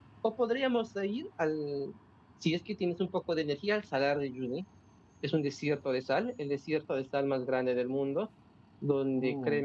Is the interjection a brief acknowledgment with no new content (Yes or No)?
Yes